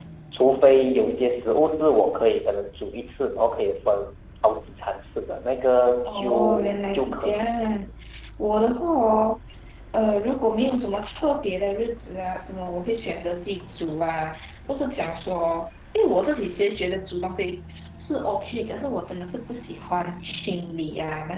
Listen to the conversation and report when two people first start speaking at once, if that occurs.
6.0 s

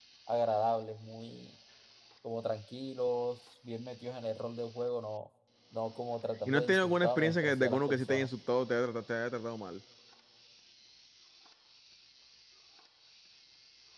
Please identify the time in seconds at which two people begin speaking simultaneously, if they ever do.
6.5 s

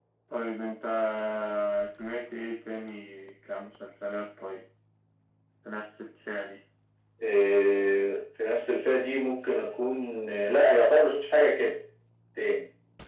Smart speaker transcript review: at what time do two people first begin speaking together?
none

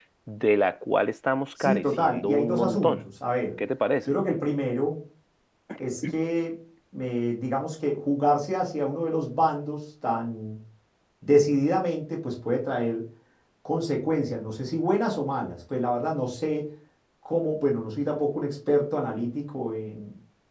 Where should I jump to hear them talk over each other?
1.6 s

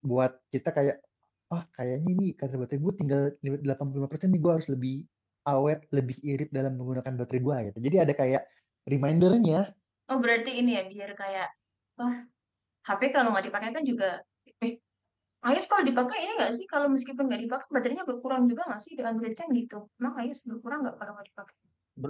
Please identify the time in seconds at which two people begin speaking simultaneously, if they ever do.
none

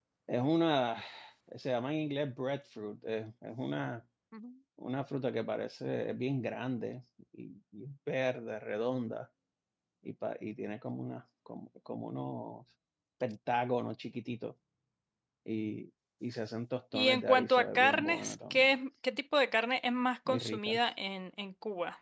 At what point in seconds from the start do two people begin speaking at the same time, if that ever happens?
16.9 s

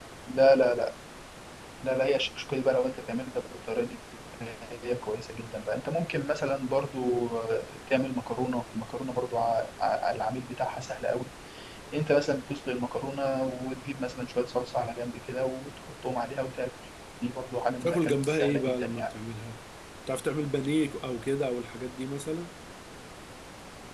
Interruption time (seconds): 17.8 s

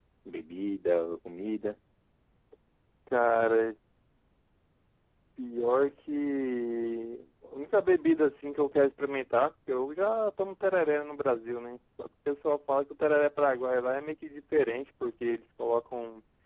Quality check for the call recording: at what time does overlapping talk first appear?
none

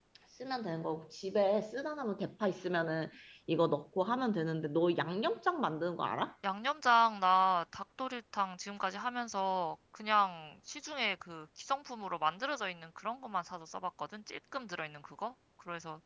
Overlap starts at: none

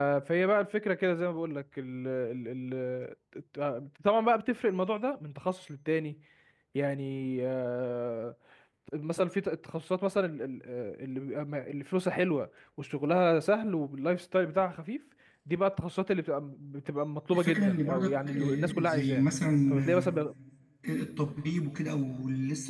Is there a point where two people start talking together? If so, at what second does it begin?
17.3 s

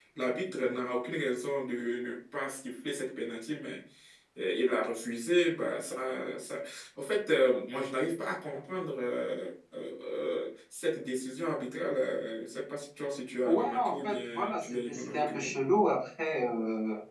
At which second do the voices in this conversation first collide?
13.4 s

